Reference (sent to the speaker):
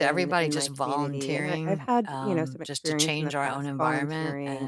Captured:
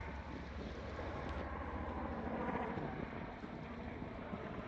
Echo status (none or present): none